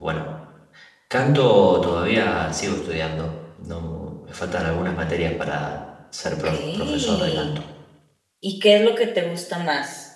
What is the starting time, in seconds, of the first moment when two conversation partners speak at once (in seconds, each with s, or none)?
6.2 s